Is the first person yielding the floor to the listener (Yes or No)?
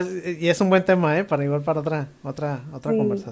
Yes